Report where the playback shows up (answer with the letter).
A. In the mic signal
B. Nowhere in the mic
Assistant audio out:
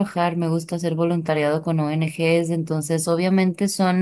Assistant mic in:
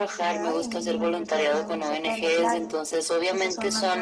A